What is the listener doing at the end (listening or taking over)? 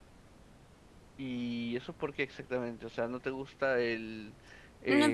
taking over